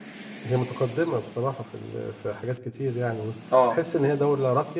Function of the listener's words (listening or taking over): listening